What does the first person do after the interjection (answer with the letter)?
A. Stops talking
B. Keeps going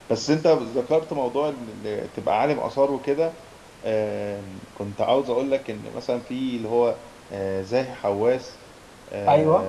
B